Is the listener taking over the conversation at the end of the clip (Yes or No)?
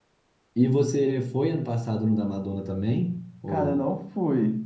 Yes